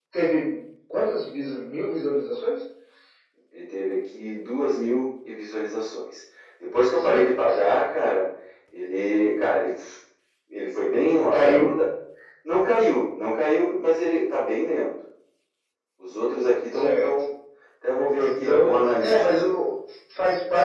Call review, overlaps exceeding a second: present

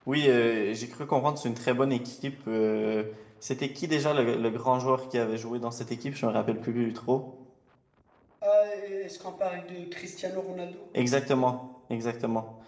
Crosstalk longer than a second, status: none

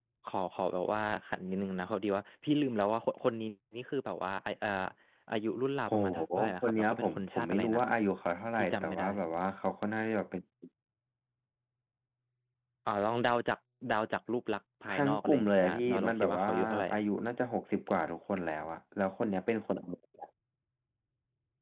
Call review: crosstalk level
present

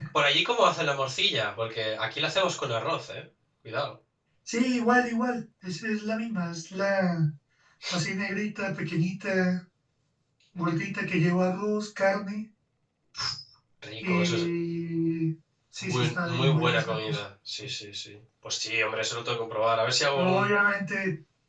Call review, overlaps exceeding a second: present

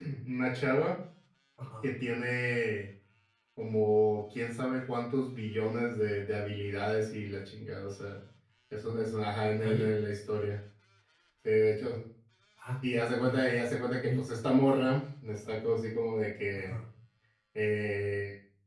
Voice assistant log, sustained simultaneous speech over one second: none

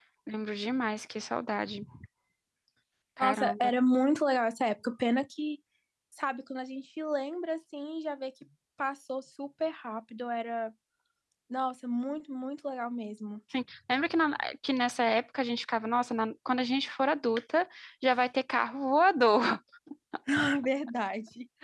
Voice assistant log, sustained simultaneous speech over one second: none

